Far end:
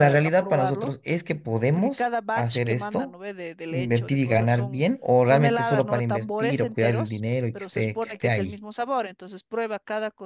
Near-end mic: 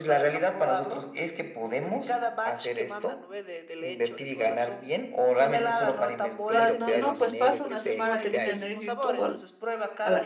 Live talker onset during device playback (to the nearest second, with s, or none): 6 s